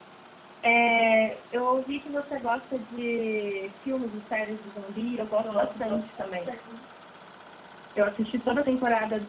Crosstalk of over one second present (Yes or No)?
Yes